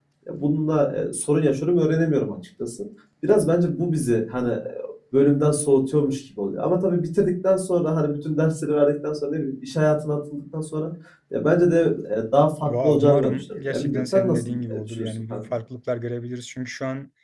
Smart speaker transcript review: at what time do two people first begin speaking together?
12.6 s

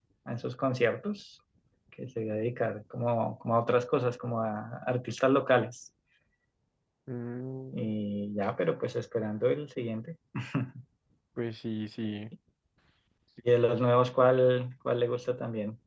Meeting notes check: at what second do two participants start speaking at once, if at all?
none

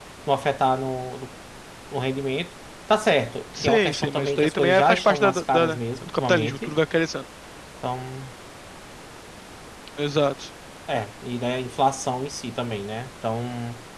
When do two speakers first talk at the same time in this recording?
3.5 s

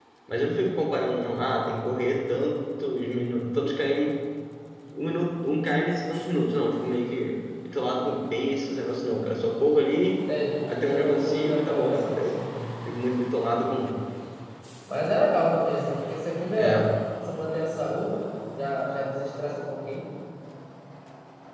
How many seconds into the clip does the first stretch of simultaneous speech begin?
10.7 s

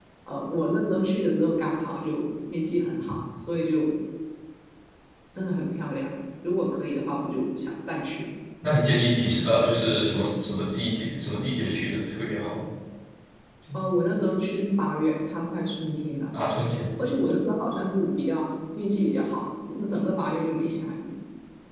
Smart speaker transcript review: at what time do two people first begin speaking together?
none

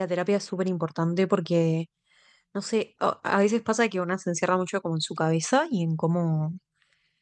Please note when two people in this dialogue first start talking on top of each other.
none

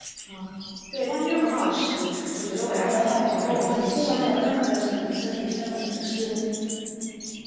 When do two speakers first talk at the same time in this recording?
2.8 s

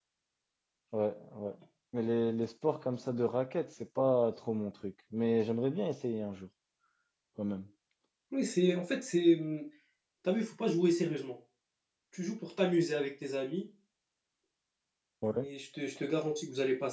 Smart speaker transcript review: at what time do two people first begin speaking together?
none

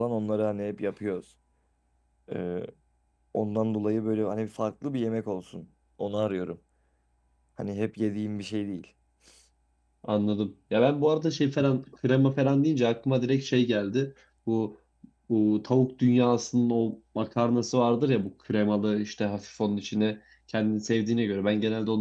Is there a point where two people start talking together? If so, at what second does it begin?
none

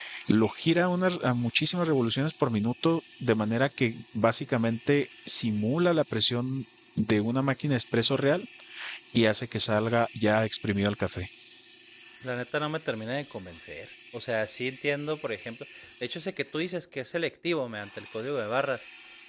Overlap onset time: none

